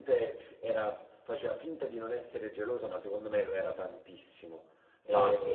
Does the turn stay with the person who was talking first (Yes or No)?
Yes